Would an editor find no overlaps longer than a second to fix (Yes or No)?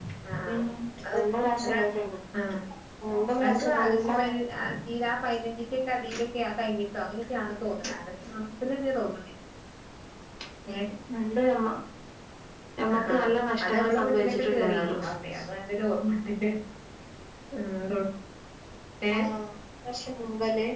No